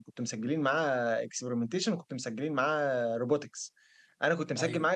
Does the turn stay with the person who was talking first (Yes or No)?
Yes